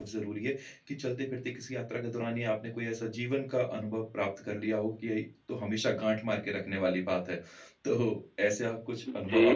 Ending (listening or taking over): taking over